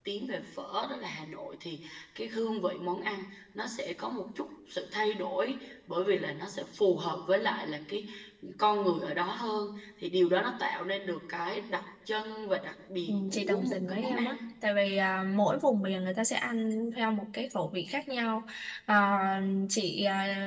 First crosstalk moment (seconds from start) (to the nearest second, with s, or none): 13 s